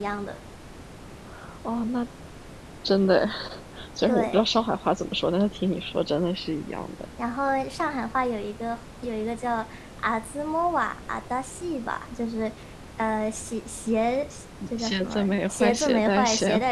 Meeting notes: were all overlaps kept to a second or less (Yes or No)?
No